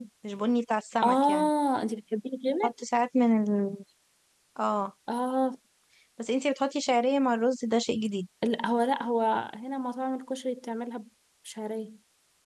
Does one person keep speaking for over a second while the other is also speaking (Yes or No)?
No